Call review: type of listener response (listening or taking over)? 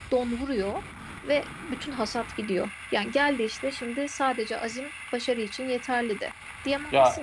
listening